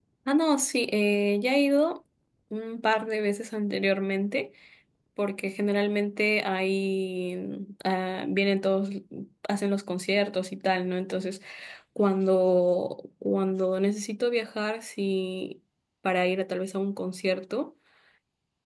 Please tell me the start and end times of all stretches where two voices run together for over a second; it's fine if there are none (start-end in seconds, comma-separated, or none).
none